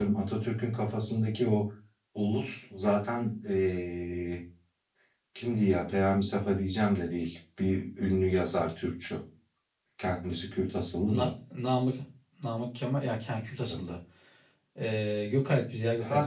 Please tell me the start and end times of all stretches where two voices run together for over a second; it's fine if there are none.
none

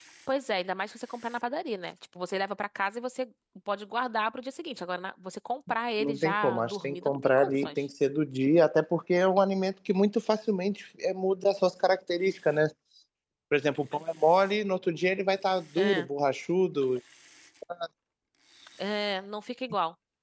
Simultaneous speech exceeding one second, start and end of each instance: 6.0-7.8

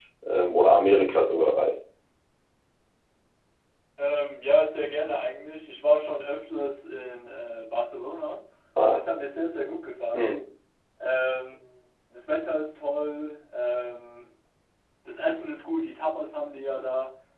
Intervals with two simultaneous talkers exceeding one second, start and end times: none

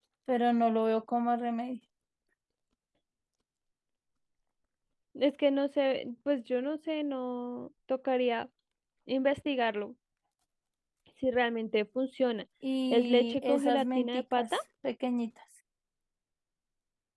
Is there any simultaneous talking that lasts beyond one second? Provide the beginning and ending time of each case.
12.9-14.6

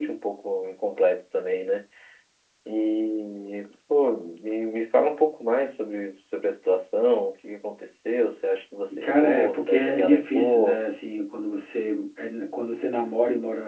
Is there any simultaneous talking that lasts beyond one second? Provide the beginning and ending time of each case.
9.0-10.8

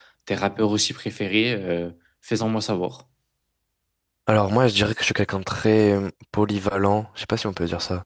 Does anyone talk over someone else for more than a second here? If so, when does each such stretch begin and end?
none

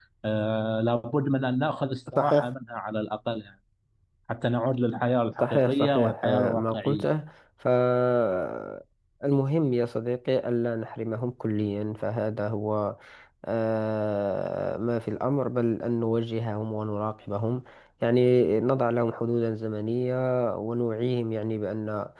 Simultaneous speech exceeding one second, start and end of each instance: 5.4-7.1

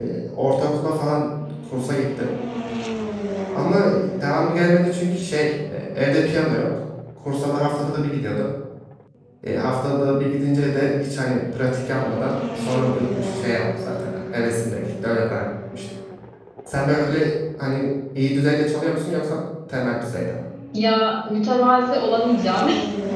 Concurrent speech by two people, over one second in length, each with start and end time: none

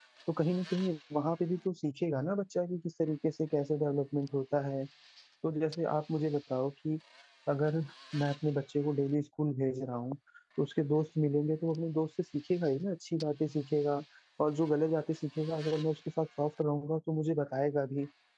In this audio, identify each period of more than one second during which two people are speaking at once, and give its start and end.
none

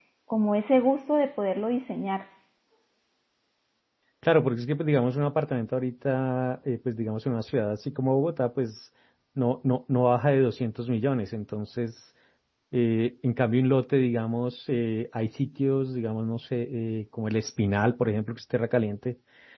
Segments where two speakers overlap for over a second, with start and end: none

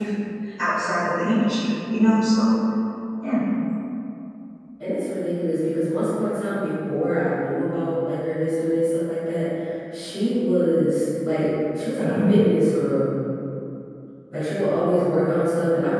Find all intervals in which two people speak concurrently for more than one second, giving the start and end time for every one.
none

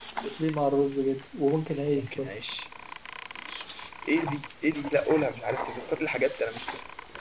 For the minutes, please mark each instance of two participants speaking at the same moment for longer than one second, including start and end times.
none

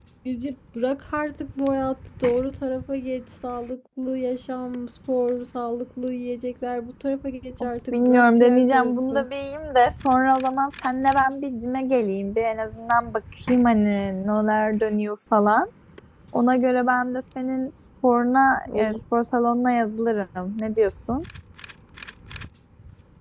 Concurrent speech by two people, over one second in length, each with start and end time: 7.6-9.3

